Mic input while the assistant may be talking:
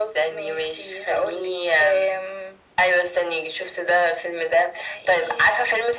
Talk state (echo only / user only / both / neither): echo only